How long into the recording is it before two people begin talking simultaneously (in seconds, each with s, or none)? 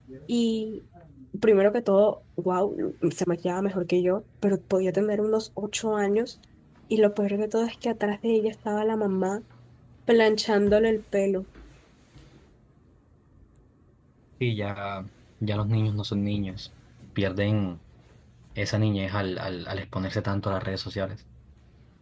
none